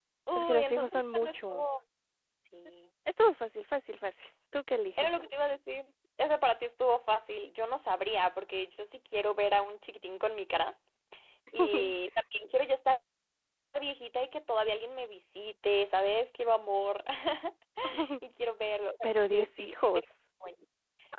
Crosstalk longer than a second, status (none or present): present